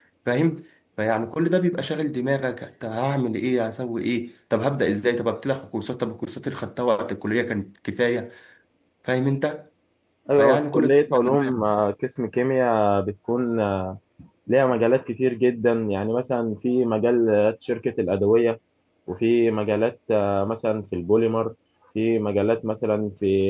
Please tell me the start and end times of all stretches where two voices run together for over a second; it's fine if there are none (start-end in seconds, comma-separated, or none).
10.4-11.7